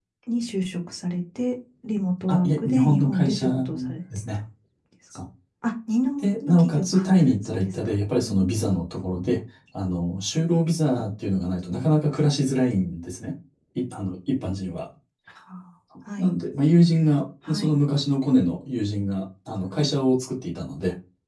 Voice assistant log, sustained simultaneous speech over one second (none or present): present